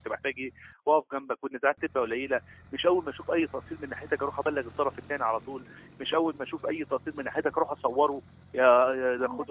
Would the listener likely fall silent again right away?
Yes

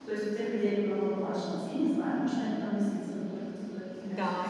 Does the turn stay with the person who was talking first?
No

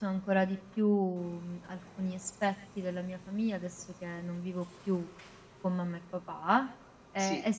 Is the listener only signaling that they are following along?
Yes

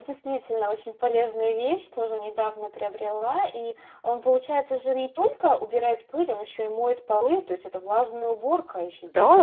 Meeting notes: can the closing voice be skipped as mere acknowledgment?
No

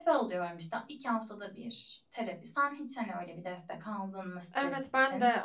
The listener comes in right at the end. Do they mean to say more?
Yes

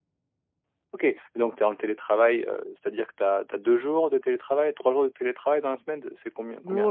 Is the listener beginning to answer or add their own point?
Yes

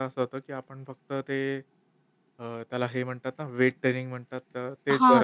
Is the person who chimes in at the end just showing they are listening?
No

